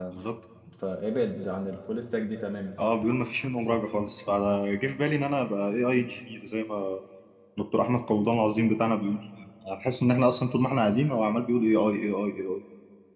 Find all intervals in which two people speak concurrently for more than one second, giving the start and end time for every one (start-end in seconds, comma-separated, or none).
none